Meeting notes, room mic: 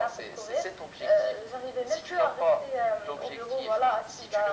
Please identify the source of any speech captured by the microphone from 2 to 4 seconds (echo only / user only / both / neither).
echo only